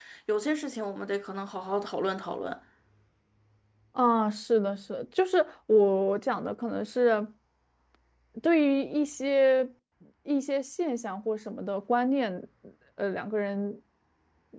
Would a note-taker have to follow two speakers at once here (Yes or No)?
No